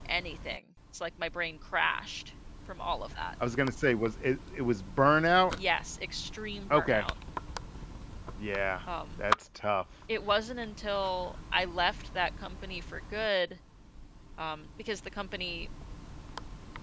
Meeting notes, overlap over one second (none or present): none